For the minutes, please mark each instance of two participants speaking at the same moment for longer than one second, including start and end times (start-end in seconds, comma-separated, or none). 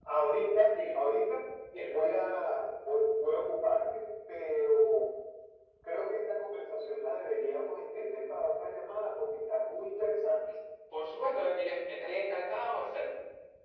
none